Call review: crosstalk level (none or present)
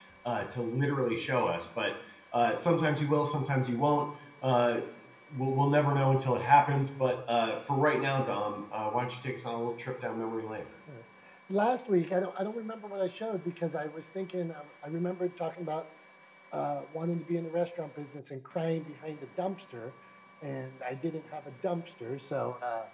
none